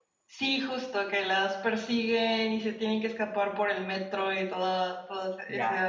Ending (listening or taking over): taking over